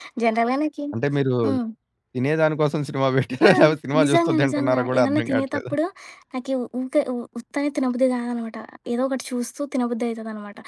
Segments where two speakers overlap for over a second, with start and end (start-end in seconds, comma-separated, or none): 4.0-5.7